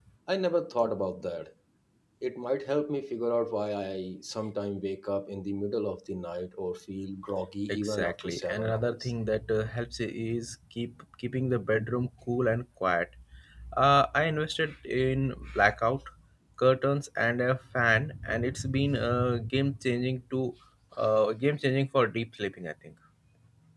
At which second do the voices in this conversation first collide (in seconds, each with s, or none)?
7.7 s